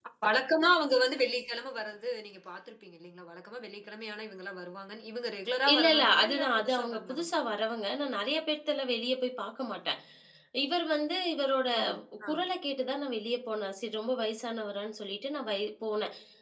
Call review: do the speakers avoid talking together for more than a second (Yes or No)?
No